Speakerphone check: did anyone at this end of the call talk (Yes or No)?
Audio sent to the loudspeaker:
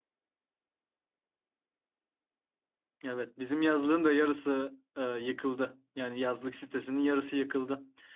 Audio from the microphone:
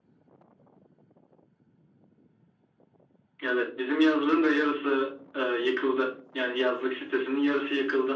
No